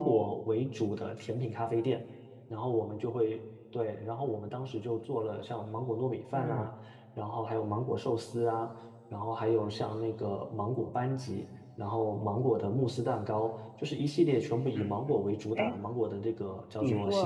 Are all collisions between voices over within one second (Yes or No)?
Yes